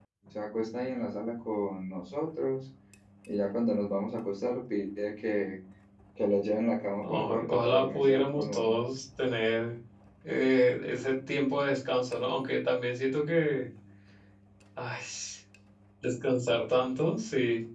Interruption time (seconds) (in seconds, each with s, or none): 7.0 s